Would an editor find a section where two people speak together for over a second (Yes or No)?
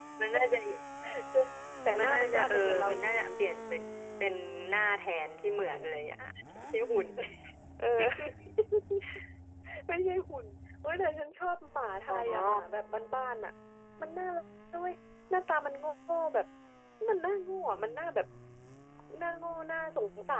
Yes